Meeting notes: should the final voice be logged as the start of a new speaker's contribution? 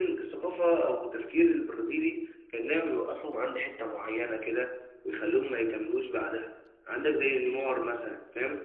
No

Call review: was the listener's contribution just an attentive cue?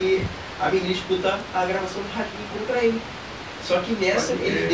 Yes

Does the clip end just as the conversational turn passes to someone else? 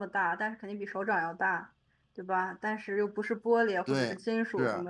No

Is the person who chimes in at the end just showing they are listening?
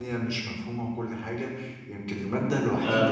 Yes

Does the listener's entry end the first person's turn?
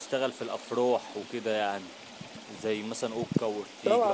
Yes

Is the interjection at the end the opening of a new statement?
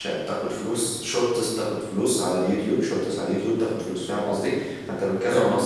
No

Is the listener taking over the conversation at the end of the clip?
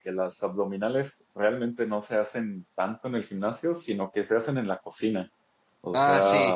No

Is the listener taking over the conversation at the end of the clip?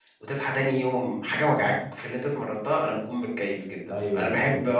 Yes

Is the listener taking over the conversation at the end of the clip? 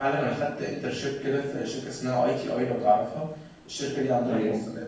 No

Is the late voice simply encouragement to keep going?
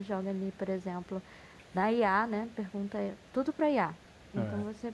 Yes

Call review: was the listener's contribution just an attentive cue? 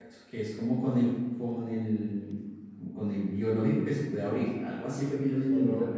No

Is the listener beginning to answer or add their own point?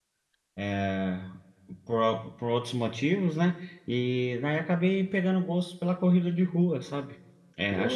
No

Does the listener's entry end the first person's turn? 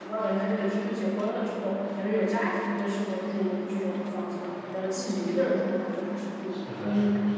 Yes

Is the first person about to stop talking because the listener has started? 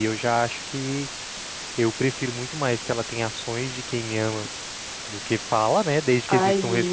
Yes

